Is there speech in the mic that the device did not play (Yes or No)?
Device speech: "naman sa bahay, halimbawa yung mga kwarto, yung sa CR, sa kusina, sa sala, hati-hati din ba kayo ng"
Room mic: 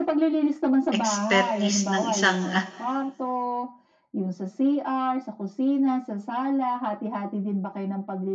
Yes